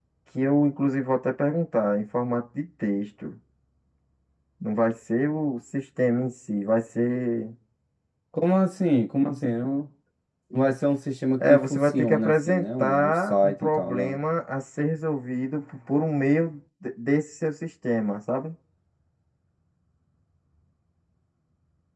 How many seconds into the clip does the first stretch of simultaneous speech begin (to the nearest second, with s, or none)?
11 s